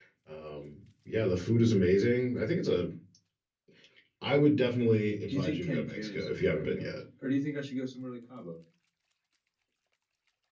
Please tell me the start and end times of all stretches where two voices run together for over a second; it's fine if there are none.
5.3-6.9

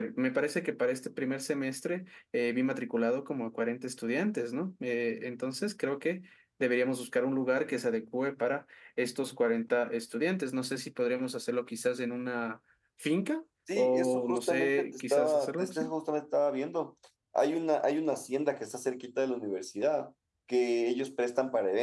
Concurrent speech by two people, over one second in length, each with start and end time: 13.8-15.9

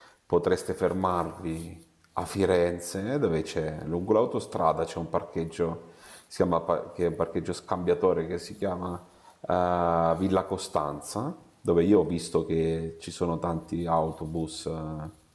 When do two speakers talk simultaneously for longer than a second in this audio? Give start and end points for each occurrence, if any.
none

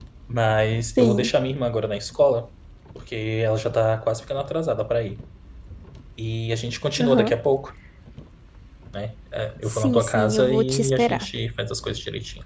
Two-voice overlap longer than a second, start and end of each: 9.7-11.3

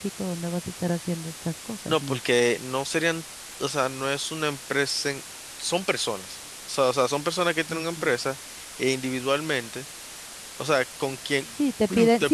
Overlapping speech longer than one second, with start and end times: none

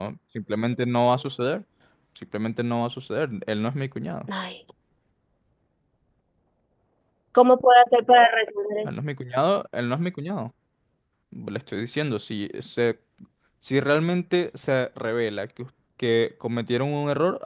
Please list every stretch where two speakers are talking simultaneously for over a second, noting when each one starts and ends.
none

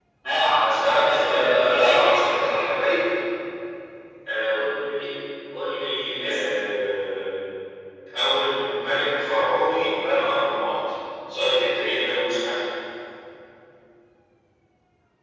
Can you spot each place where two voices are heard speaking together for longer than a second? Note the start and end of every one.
0.8-2.1

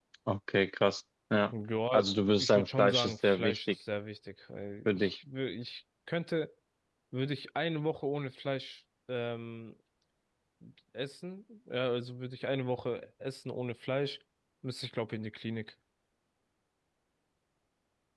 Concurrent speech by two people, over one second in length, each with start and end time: 2.4-3.8

